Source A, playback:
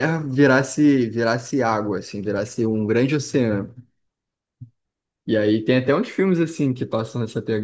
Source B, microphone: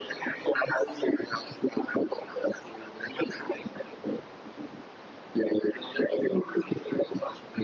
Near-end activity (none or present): none